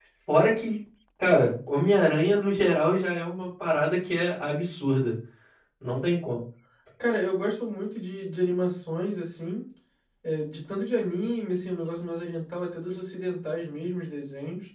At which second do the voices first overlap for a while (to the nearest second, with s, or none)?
none